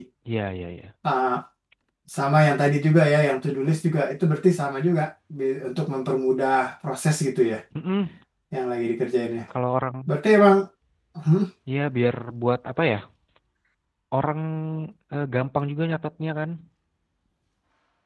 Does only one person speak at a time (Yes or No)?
Yes